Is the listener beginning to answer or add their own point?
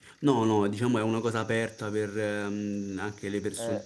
No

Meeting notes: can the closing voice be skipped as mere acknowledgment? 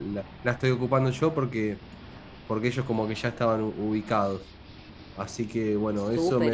No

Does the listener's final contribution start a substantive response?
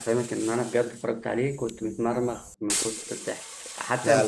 No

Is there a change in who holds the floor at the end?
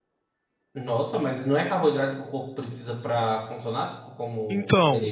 Yes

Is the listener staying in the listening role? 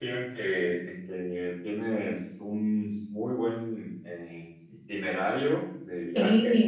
Yes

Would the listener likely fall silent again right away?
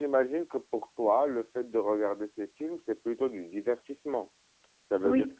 Yes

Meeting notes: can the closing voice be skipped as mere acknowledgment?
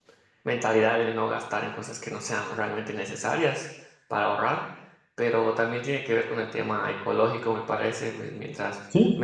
Yes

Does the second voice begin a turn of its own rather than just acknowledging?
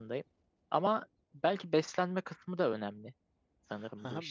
Yes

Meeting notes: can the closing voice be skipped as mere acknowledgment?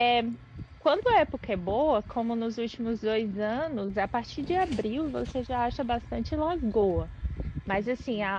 Yes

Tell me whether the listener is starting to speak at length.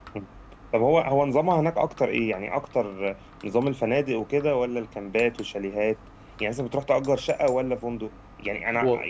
No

